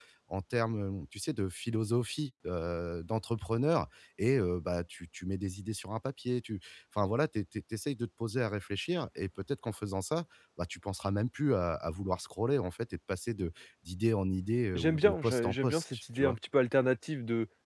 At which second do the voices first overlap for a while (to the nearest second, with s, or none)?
15 s